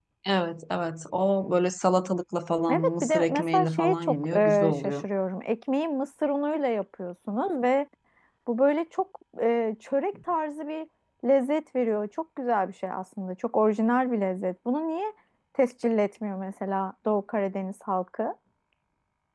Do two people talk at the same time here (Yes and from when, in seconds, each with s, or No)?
Yes, from 2.7 s